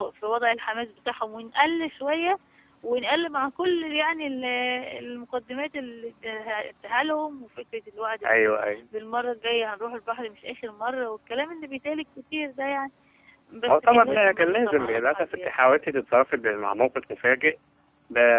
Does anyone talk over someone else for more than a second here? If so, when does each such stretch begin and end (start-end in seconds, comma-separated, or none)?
13.7-15.5